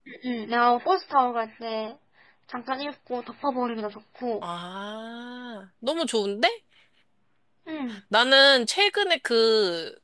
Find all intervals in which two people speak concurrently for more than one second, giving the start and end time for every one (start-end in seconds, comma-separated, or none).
none